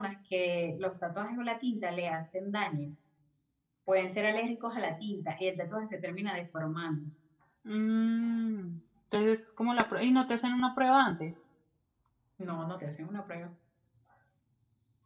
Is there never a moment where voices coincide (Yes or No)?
Yes